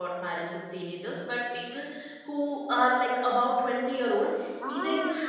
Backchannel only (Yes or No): Yes